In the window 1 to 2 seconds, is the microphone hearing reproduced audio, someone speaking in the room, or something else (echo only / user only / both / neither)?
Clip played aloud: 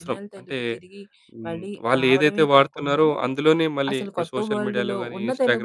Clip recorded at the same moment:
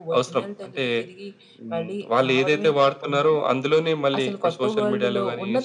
echo only